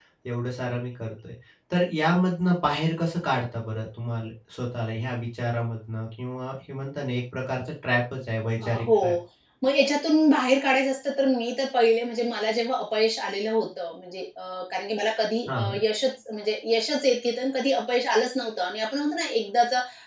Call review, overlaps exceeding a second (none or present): none